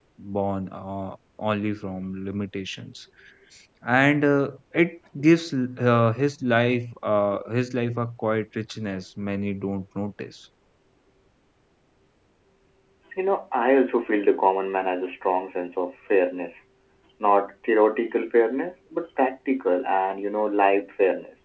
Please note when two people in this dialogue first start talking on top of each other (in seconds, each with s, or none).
none